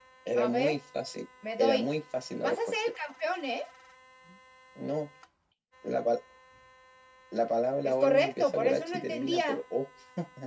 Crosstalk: present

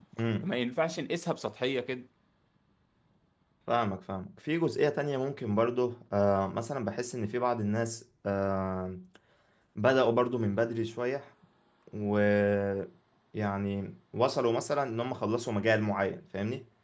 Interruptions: none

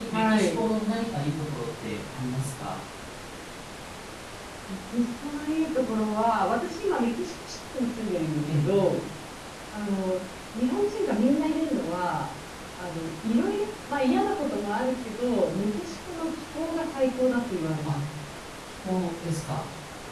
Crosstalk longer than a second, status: none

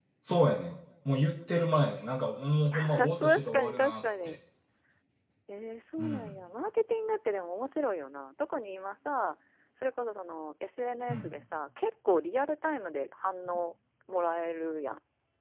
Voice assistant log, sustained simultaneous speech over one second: present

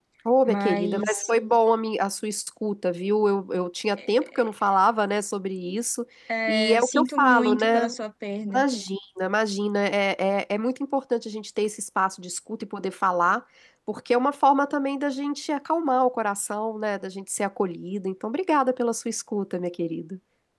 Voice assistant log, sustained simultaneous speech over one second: present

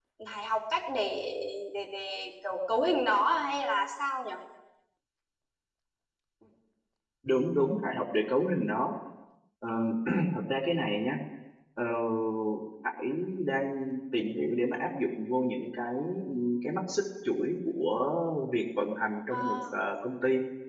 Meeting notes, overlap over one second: none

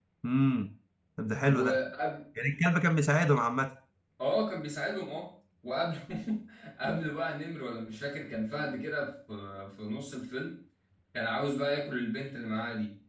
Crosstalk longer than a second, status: none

